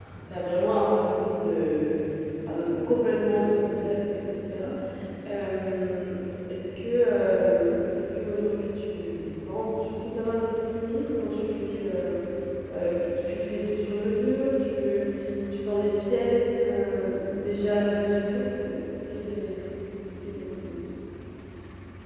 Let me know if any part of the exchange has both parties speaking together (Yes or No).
No